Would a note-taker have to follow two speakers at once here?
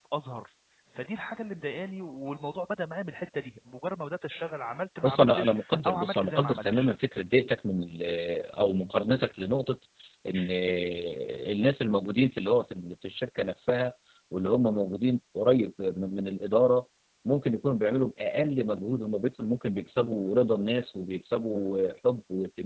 Yes, from 5.0 s

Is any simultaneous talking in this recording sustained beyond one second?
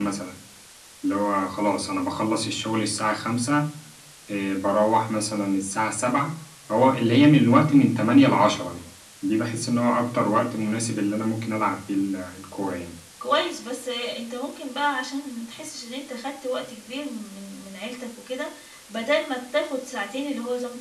No

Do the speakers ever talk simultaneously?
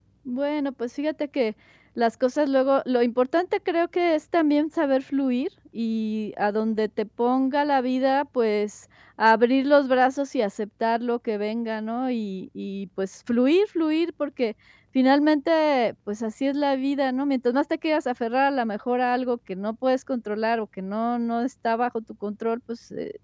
No

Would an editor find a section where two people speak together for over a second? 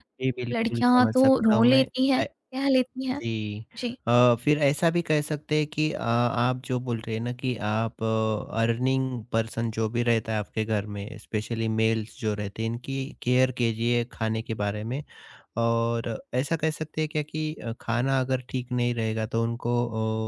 Yes, from 0.5 s

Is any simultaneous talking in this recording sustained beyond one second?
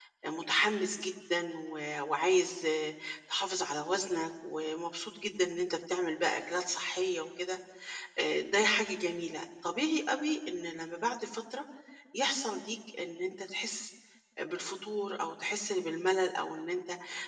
No

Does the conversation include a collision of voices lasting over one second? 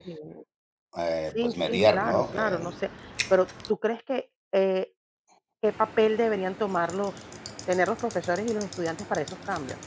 Yes, from 1.3 s

